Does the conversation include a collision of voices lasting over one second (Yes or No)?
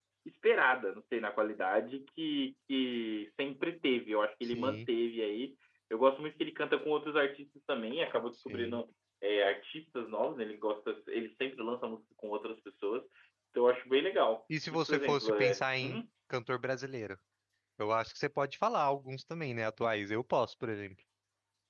Yes